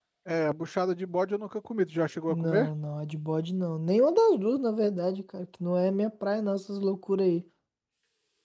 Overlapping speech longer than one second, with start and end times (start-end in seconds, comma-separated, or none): none